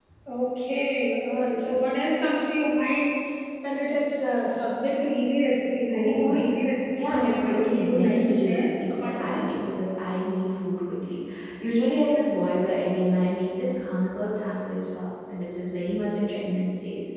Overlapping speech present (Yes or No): Yes